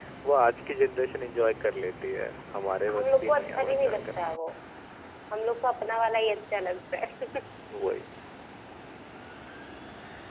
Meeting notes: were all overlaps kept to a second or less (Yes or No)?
No